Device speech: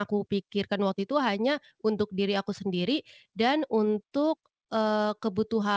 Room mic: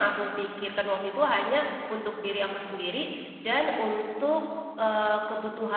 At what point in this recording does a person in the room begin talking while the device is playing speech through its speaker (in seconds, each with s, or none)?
none